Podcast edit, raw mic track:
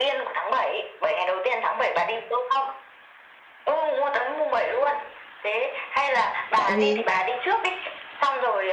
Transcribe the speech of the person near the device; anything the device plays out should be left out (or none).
tại vì